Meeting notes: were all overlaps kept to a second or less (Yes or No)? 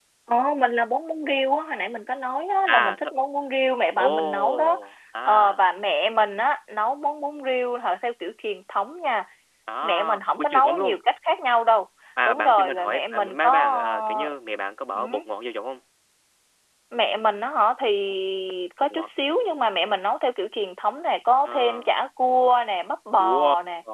No